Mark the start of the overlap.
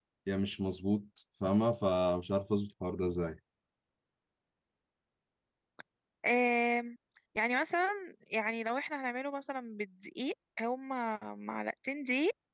none

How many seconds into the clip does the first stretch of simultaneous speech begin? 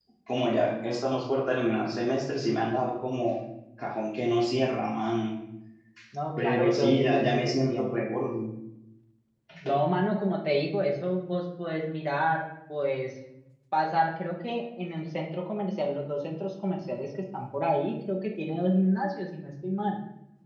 6 s

